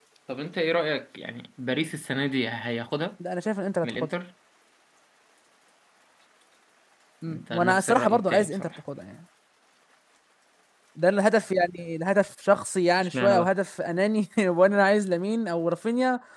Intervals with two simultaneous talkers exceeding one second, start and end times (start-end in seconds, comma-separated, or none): 7.3-8.7